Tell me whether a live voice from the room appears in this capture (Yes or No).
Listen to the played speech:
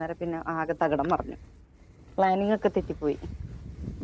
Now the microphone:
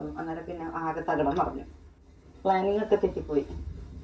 No